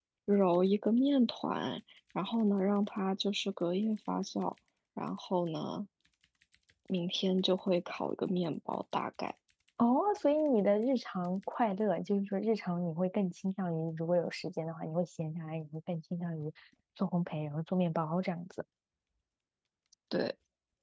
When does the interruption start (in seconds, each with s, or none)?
none